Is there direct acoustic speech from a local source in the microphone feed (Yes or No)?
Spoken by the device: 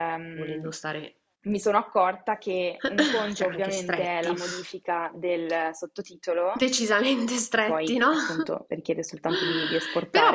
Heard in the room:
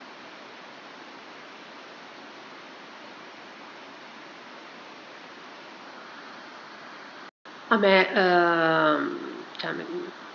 Yes